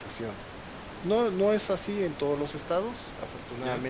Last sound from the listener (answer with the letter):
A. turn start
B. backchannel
B